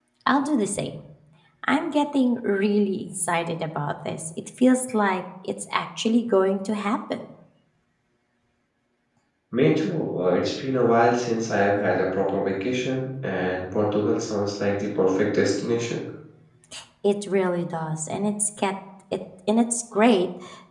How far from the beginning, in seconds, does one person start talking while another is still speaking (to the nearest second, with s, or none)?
none